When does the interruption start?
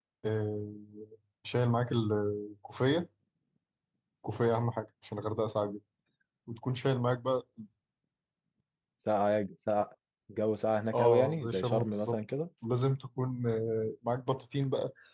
10.9 s

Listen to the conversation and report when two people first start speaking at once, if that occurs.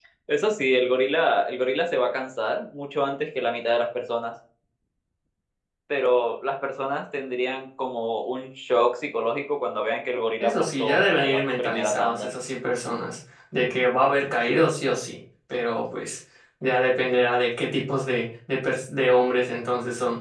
10.4 s

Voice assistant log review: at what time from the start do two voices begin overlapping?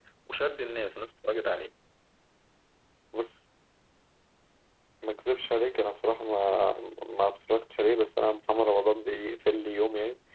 none

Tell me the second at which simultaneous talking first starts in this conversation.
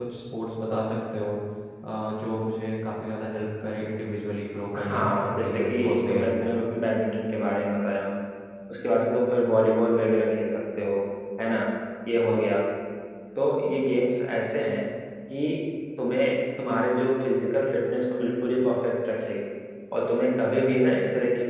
4.7 s

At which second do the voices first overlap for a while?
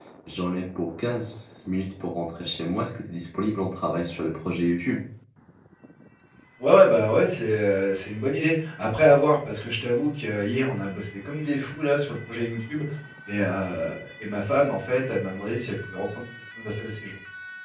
none

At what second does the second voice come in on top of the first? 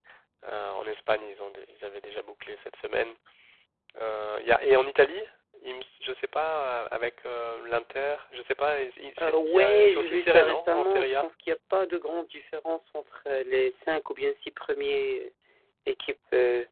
9.2 s

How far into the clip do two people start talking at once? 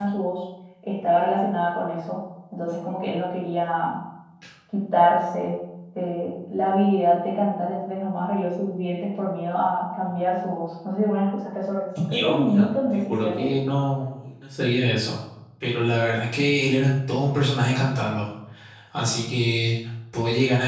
11.9 s

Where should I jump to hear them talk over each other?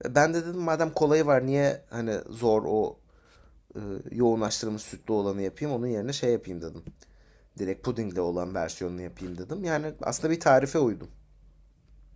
none

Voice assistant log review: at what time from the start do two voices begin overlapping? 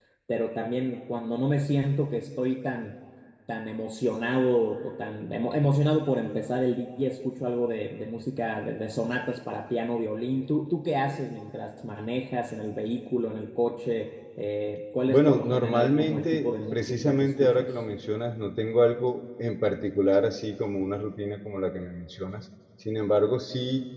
15.1 s

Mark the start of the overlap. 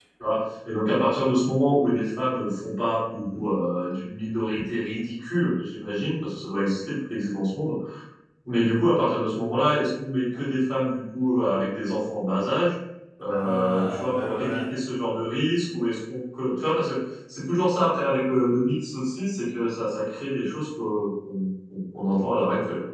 13.3 s

